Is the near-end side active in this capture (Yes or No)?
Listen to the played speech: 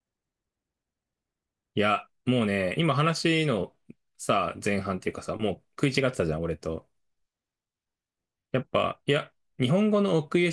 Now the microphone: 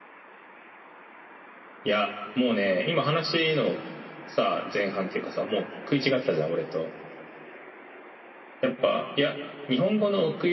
No